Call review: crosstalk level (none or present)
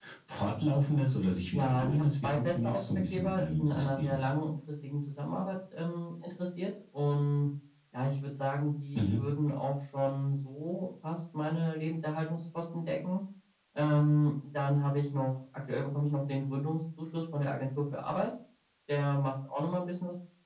present